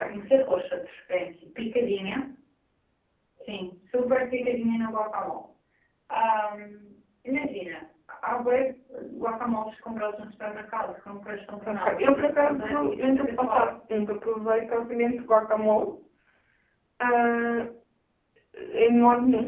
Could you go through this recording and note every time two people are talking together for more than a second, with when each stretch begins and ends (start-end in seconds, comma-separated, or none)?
11.7-13.7